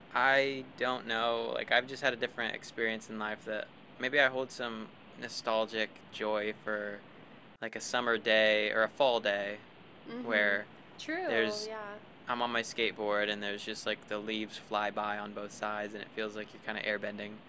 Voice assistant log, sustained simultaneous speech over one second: none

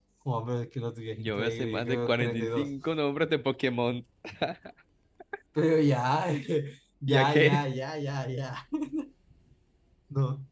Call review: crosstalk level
present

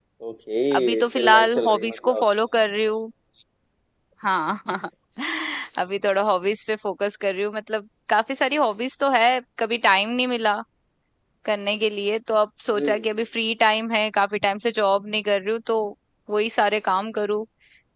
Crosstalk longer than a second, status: present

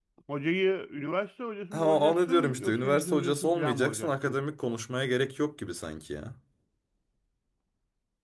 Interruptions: present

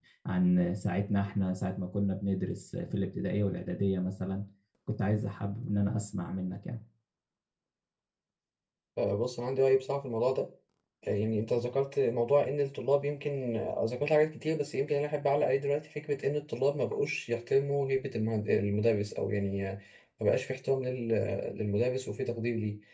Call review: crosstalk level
none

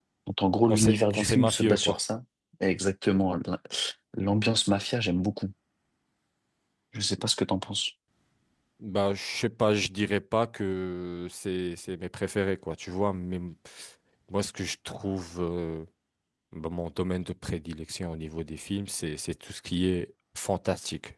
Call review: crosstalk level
present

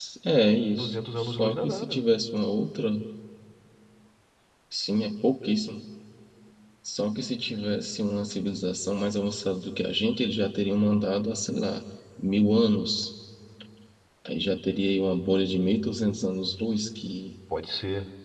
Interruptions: present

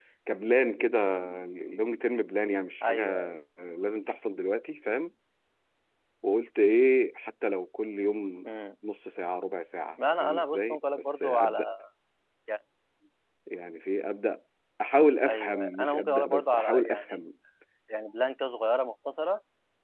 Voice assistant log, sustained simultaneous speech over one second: present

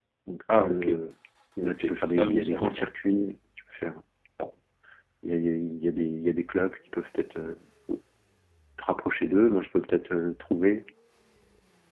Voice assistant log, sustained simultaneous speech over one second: present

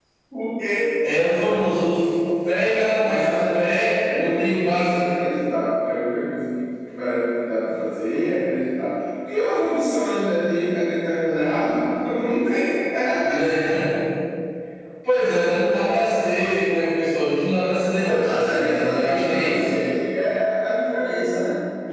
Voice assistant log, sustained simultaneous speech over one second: present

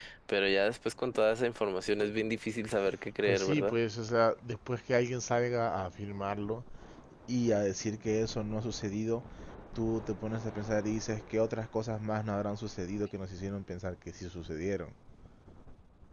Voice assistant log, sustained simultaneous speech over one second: none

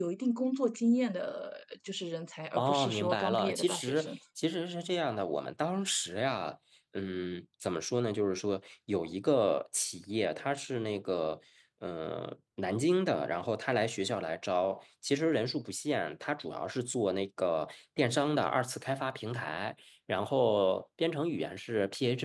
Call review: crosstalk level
present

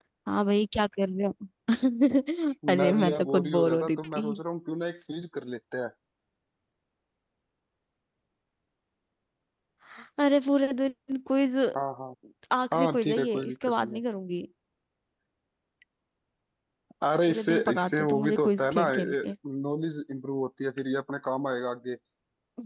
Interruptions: present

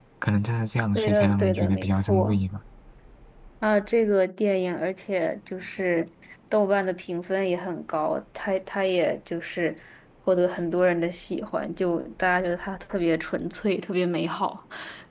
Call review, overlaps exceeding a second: present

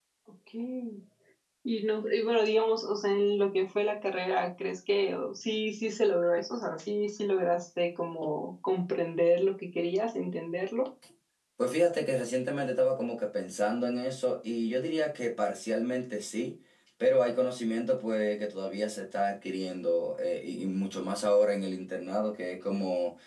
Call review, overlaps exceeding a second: none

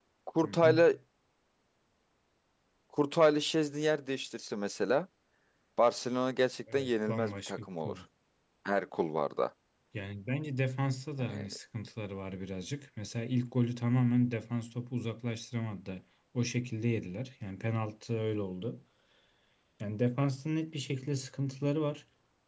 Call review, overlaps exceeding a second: present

